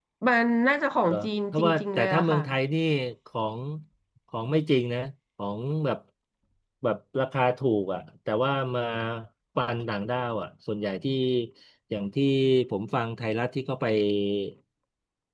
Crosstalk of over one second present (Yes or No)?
Yes